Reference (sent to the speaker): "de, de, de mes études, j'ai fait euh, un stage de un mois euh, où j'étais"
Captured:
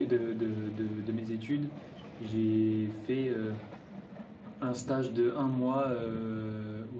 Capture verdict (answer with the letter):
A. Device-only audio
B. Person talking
A